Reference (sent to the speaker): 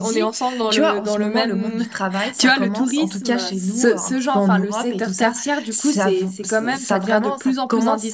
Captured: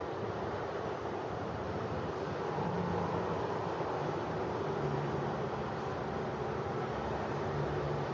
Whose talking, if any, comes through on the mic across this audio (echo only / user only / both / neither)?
neither